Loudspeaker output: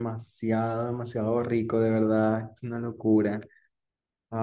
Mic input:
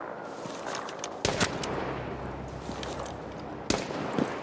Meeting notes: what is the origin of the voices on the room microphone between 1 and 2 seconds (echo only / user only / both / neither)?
neither